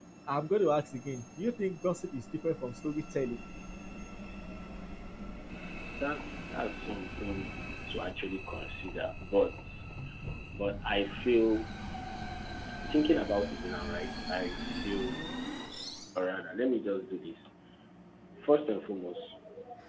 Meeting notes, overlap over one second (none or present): none